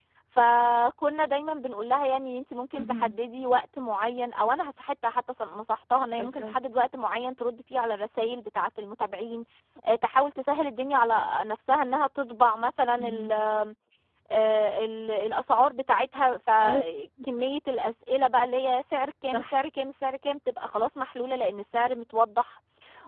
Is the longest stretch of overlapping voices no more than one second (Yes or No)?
Yes